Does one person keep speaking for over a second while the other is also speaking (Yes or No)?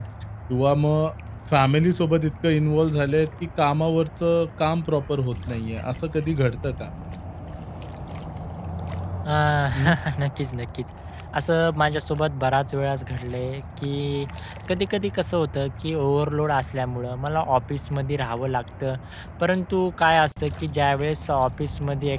No